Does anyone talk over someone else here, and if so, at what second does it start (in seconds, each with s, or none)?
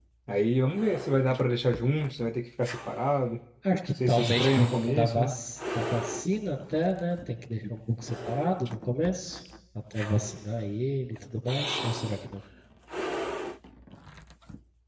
4.1 s